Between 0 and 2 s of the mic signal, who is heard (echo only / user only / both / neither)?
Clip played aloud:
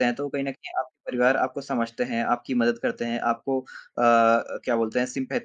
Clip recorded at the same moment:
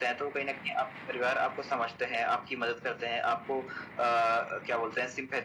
echo only